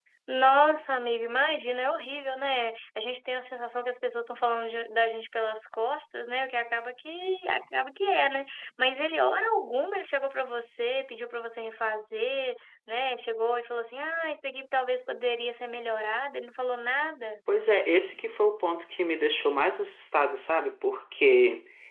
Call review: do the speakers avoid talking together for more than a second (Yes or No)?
Yes